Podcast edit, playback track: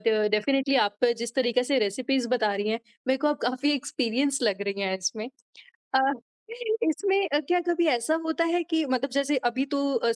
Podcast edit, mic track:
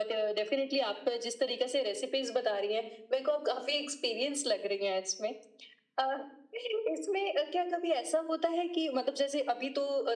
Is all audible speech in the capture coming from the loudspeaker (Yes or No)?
Yes